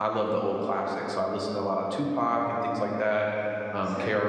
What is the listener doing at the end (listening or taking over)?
listening